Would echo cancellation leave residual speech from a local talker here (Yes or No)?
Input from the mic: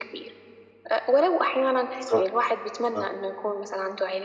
Yes